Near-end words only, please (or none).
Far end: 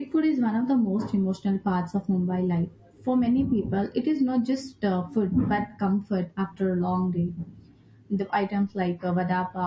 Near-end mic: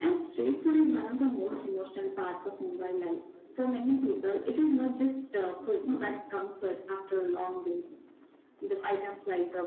none